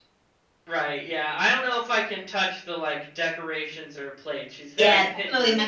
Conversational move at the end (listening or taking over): taking over